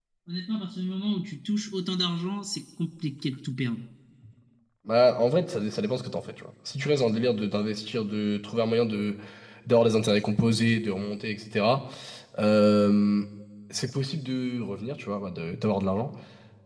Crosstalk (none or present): none